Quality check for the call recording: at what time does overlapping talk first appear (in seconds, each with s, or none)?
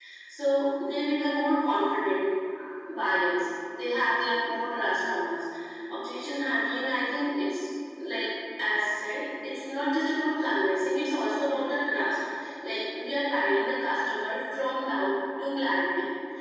none